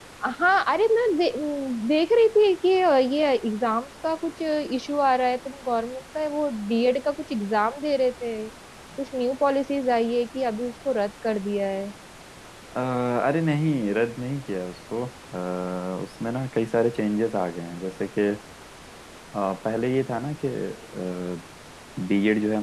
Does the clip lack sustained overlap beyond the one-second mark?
Yes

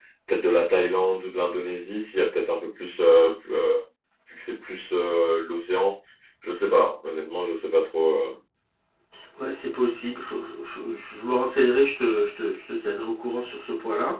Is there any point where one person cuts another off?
No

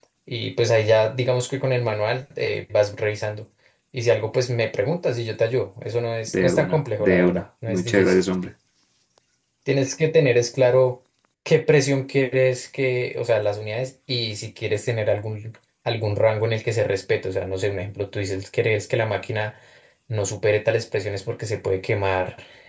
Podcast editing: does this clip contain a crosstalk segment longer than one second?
Yes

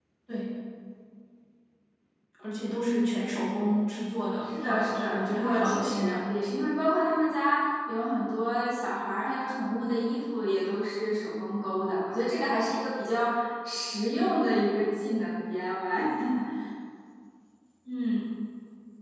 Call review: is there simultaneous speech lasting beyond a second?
Yes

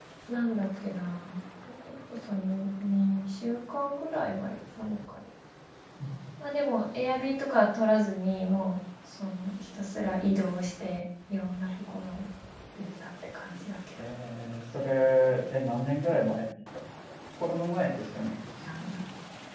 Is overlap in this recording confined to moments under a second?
Yes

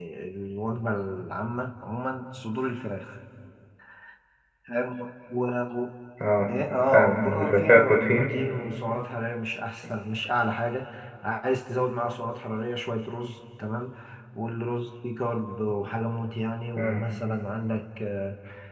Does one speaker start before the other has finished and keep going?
Yes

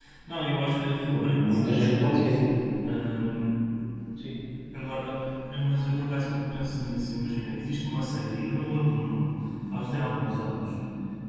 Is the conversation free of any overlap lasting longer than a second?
No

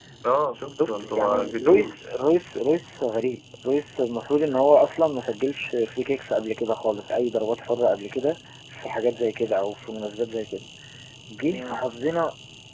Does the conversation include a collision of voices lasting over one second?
Yes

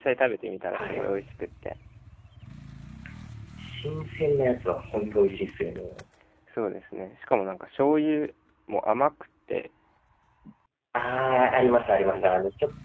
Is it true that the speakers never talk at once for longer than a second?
Yes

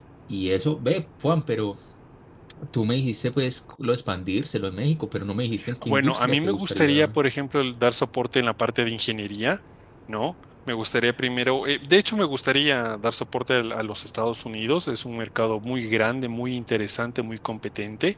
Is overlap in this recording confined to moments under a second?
No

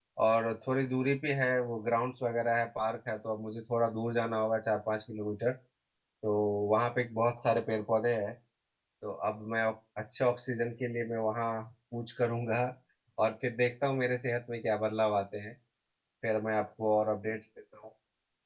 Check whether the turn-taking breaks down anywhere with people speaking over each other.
No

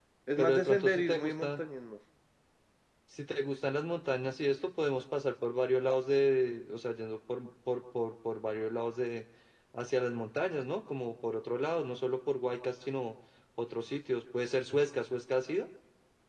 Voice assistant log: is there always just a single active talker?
No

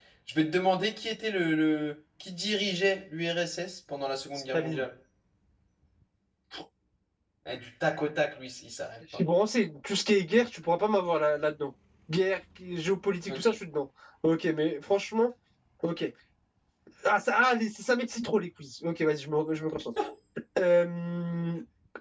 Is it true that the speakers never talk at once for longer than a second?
Yes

